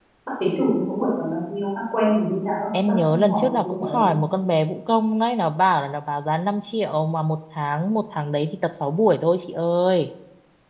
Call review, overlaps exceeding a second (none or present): present